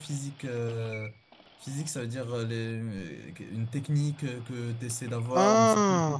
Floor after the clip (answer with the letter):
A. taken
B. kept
B